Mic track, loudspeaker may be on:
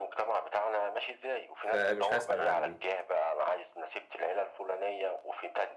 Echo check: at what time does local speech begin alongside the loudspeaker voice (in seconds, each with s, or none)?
1.6 s